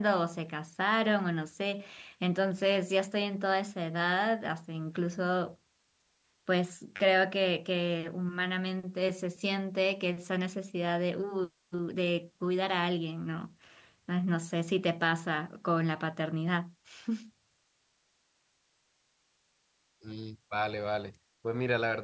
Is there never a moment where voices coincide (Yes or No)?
Yes